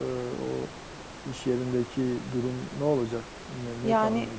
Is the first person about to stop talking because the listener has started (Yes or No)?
Yes